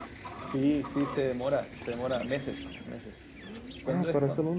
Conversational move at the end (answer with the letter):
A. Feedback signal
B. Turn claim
B